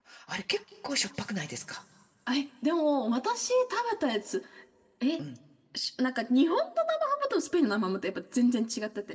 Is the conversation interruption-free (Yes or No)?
Yes